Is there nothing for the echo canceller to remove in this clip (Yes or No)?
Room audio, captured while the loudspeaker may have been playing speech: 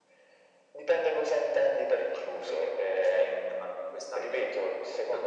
No